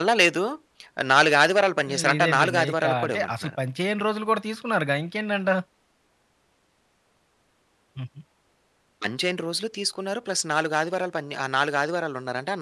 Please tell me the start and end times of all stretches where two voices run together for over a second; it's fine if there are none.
2.1-3.5

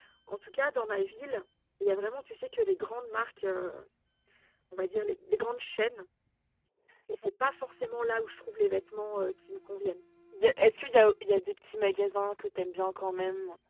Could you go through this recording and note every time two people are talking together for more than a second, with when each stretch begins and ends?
none

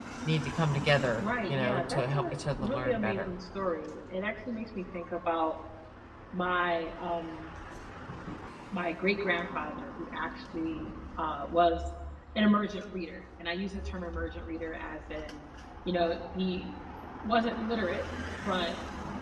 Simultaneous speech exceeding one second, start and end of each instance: 1.2-3.3

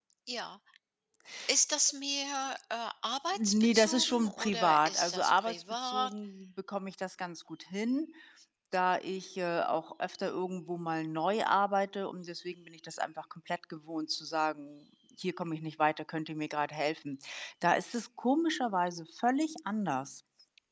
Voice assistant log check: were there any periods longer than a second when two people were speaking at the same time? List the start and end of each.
3.4-6.1

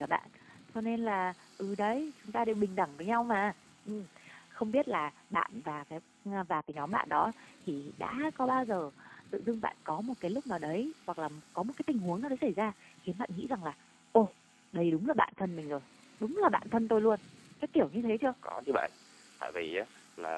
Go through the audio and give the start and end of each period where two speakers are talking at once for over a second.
none

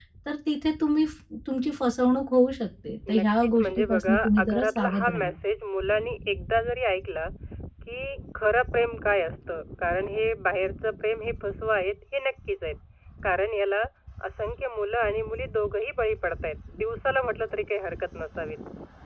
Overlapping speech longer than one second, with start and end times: 3.1-5.3

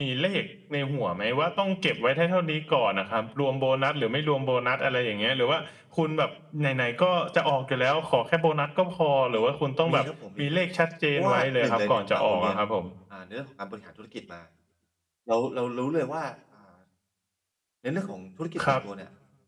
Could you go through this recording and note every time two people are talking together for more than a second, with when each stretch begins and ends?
11.2-12.6

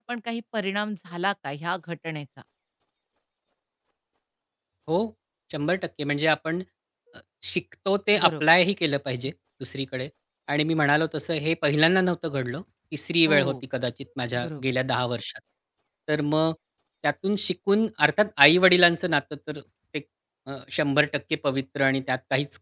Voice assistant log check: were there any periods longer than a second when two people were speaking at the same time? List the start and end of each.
none

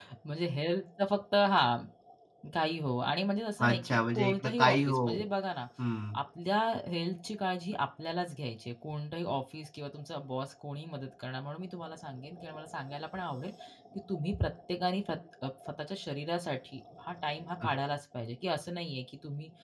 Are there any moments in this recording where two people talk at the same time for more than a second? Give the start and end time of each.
3.6-5.1

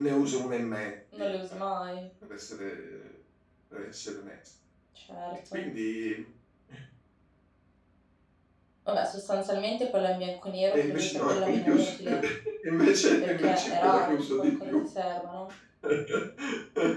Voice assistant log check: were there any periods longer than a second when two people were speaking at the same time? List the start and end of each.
10.7-12.2, 13.2-14.7

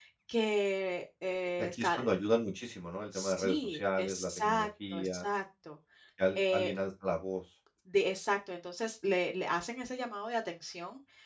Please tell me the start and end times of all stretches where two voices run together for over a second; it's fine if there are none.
3.1-5.3

